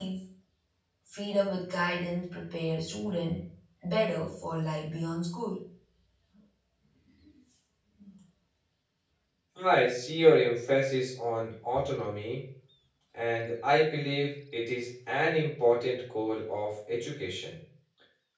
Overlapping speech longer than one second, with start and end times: none

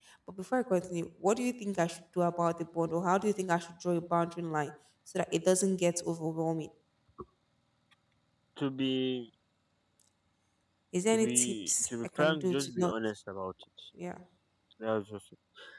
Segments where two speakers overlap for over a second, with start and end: 11.1-12.9

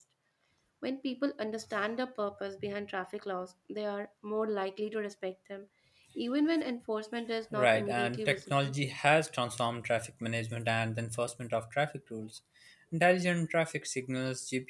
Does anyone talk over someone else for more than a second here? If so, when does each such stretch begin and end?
7.5-8.7

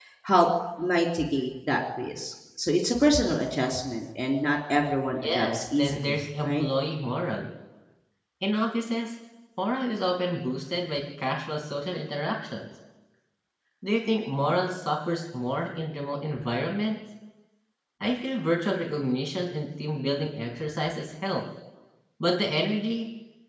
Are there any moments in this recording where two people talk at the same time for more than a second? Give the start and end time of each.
5.2-6.6

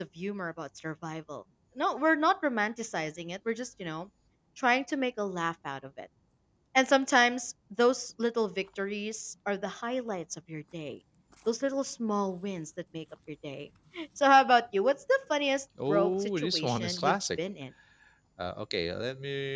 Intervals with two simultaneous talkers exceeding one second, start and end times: 15.9-17.2

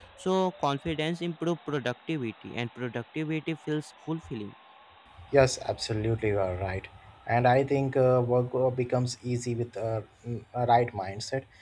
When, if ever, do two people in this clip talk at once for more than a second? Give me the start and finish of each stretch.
none

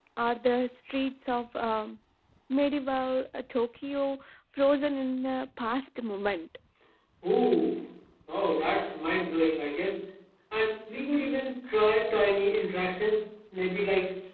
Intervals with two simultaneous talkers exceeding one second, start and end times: none

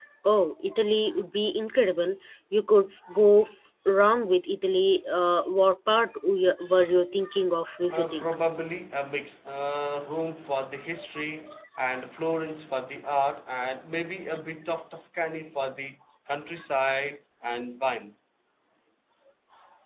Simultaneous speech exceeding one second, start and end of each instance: none

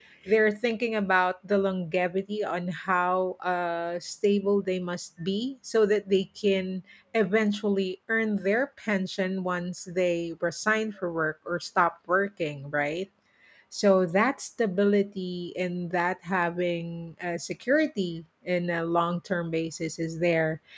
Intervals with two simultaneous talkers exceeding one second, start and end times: none

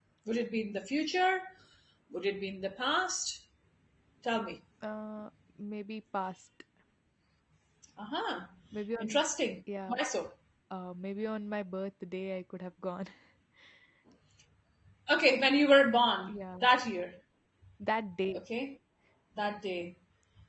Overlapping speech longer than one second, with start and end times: none

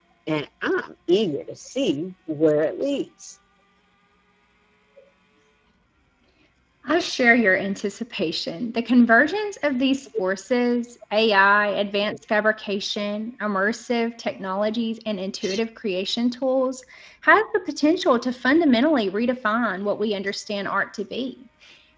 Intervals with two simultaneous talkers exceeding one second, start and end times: none

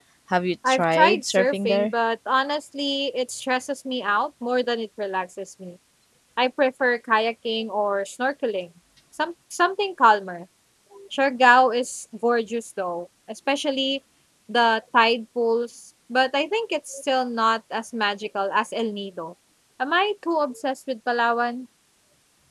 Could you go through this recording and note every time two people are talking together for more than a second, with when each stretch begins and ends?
0.7-1.9

